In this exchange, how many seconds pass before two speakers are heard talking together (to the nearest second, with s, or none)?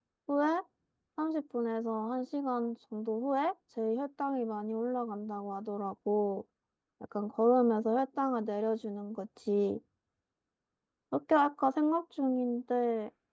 none